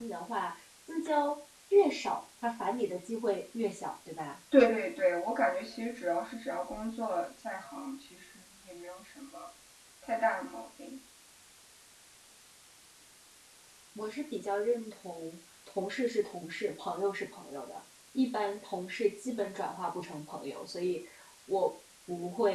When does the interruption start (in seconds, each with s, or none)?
none